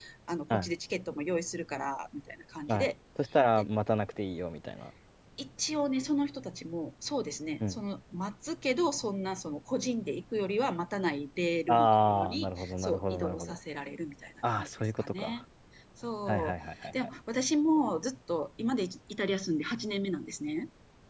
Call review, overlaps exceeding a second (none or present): present